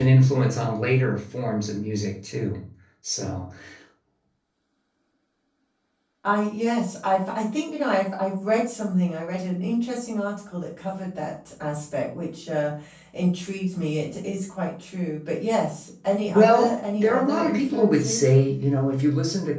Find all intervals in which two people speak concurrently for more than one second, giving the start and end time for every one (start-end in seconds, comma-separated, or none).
16.3-18.2